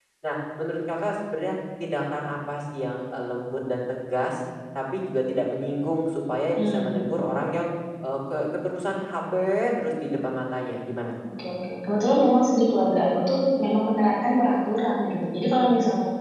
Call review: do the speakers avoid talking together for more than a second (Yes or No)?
Yes